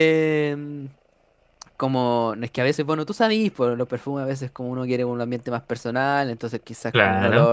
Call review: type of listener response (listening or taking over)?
listening